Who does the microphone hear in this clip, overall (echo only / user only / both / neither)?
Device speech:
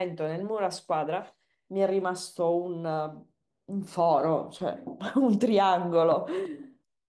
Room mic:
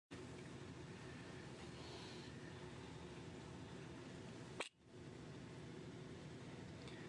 neither